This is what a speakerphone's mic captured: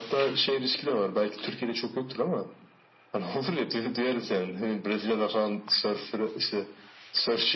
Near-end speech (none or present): none